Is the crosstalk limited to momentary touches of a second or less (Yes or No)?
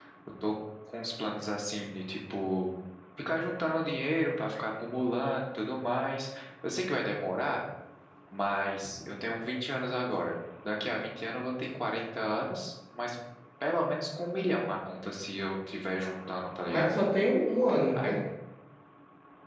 Yes